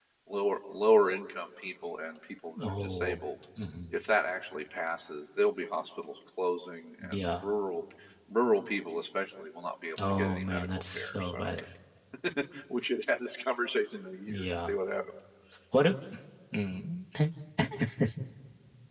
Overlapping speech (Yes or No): Yes